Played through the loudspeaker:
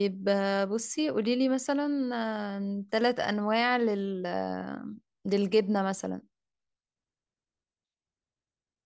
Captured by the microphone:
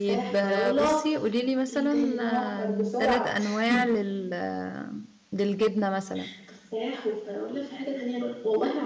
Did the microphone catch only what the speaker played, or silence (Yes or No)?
No